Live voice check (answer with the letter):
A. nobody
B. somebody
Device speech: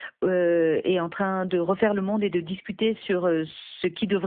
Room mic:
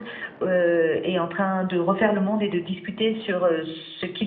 A